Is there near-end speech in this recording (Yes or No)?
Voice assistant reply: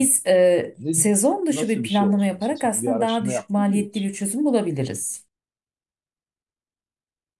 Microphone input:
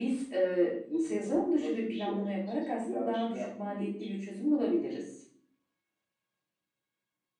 No